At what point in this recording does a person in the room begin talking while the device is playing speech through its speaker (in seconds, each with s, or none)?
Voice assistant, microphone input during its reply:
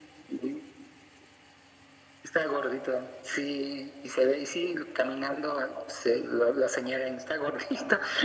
none